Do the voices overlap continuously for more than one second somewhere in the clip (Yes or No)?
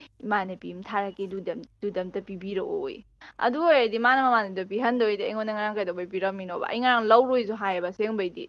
No